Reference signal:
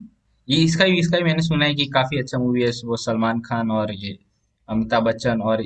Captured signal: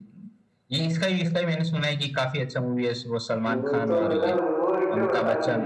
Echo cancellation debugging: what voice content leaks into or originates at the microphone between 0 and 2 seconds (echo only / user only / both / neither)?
echo only